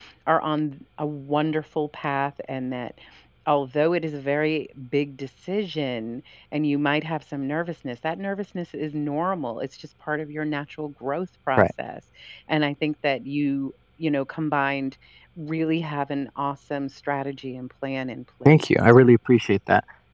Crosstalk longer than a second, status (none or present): none